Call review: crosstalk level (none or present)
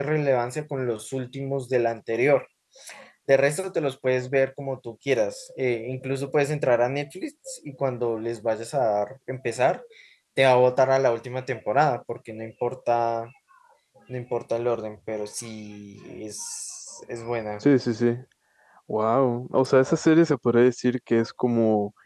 none